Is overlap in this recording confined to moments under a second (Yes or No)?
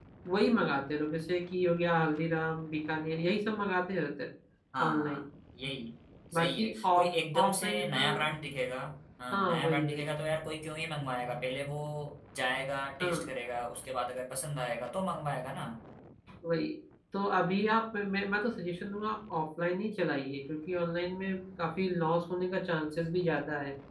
No